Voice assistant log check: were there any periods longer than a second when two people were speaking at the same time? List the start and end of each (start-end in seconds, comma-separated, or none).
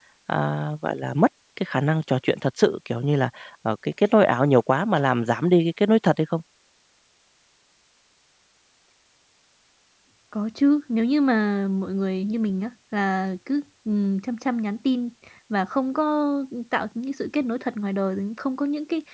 none